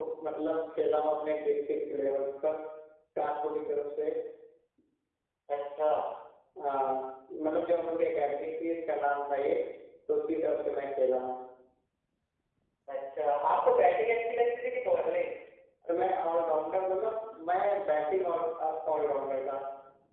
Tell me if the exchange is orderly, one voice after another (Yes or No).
Yes